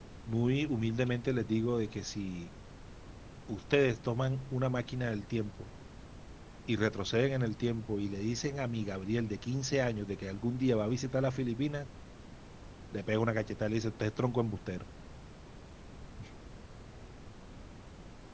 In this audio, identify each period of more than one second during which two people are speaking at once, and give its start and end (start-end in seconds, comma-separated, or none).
none